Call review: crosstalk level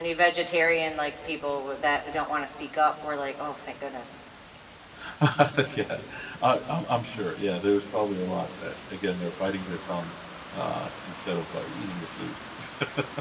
none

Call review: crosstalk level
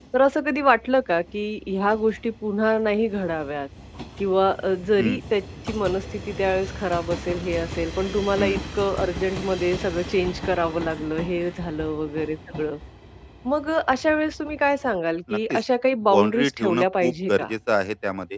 present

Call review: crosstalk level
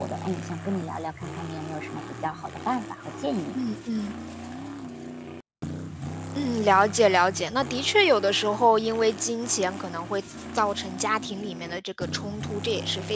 none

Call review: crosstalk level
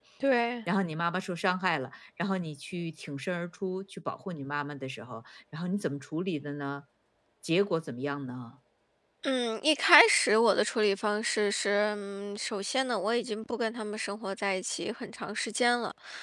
none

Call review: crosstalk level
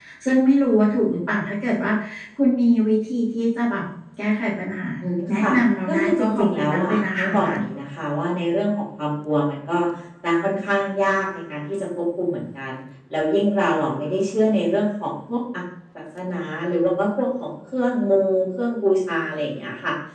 present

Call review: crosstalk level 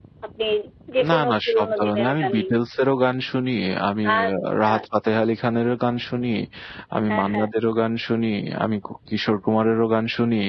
present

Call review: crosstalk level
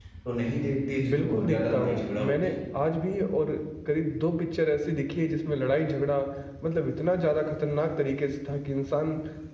present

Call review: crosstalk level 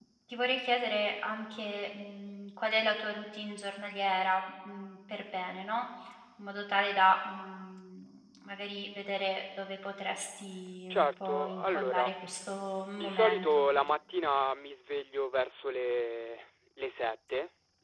present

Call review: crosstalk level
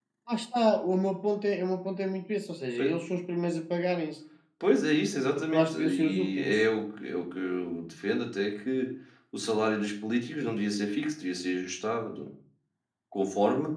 present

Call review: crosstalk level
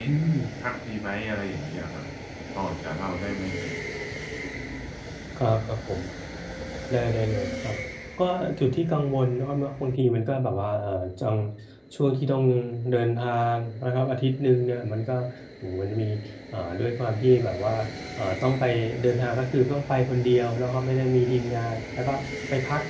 none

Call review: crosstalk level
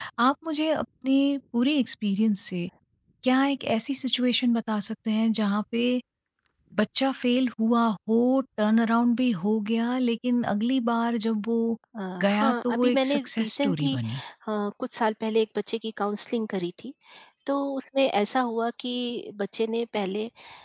present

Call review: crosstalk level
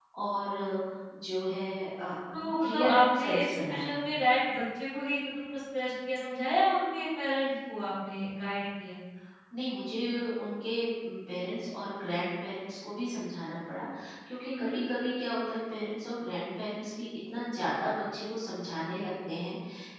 present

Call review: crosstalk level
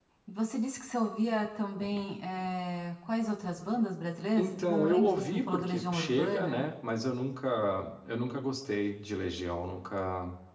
present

